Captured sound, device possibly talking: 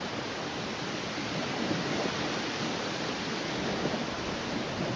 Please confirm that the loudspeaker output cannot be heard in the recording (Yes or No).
Yes